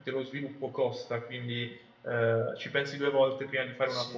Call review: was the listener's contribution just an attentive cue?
No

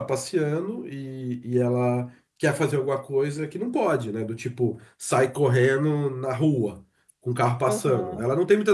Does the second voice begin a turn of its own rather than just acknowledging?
No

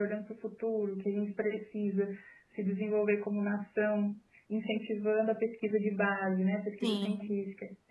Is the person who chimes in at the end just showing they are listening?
Yes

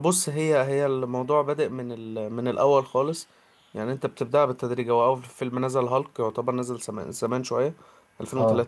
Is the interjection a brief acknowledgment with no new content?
Yes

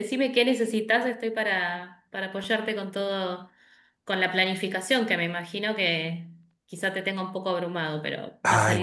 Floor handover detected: Yes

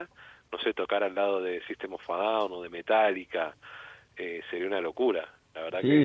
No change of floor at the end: No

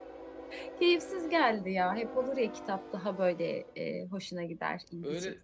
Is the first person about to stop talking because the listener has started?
Yes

